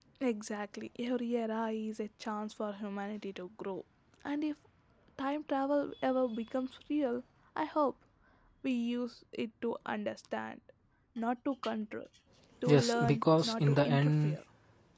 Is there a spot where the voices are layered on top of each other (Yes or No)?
Yes